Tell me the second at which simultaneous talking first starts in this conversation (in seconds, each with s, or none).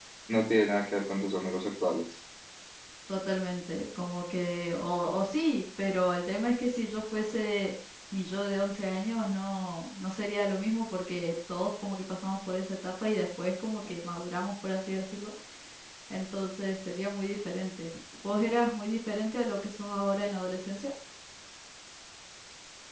none